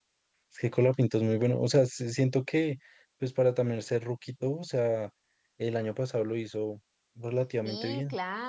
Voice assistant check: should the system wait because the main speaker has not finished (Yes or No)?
No